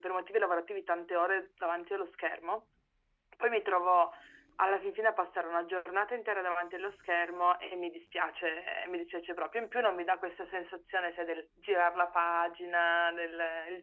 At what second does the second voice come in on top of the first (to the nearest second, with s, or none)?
none